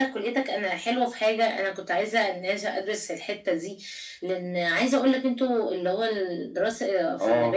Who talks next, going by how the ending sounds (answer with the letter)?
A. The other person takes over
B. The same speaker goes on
B